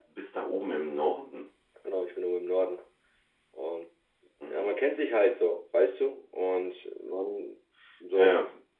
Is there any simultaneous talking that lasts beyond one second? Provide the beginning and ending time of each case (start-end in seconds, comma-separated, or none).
none